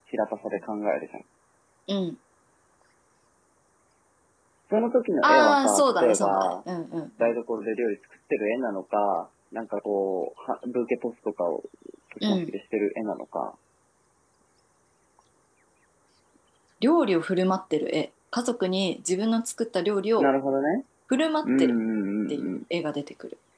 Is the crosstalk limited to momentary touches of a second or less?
No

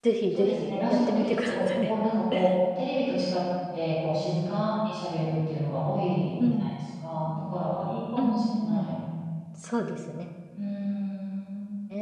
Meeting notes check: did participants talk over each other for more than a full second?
Yes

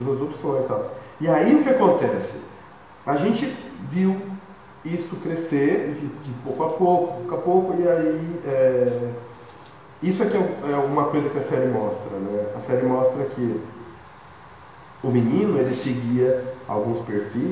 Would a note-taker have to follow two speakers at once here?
No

